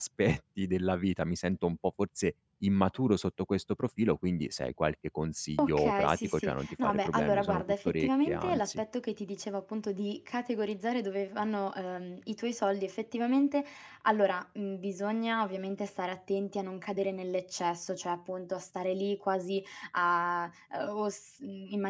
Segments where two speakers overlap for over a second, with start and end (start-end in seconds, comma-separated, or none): 5.6-8.8